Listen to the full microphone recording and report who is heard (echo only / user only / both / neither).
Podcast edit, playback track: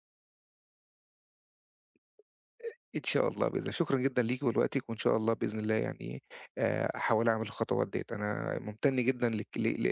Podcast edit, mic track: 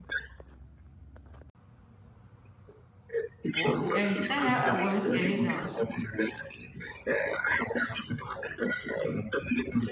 both